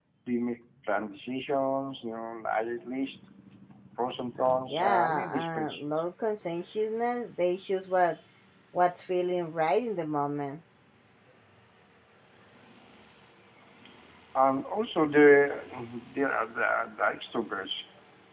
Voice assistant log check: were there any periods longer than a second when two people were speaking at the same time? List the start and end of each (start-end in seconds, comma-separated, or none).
4.7-6.0